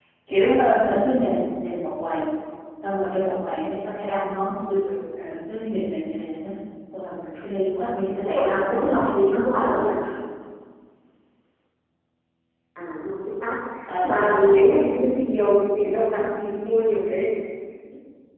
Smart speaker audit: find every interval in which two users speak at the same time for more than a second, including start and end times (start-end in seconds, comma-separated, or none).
8.2-9.8